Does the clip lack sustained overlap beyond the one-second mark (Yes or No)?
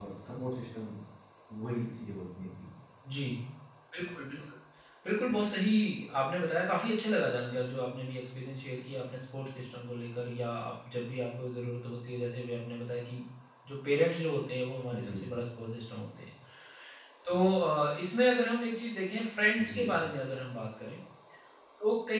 Yes